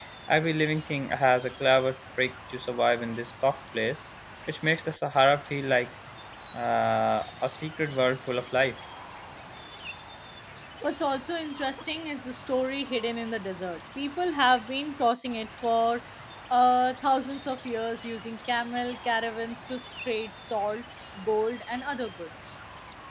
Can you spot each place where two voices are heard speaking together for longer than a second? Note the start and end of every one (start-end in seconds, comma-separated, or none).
none